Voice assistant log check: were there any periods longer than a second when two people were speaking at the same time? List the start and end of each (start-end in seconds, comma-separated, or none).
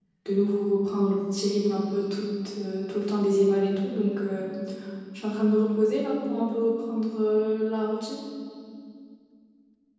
none